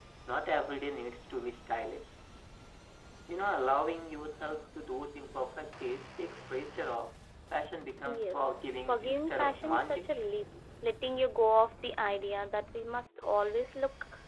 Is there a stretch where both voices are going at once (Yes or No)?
Yes